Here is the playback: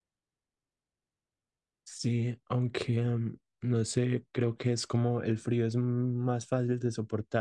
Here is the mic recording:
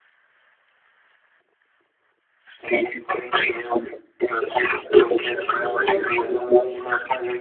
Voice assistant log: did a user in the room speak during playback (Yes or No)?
Yes